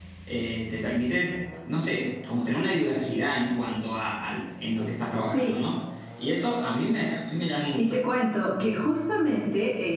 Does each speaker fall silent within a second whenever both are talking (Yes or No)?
Yes